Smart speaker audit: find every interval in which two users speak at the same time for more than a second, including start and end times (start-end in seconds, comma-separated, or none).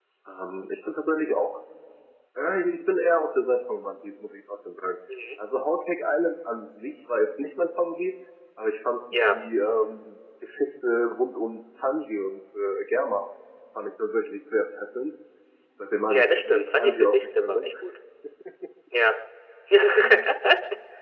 16.1-17.7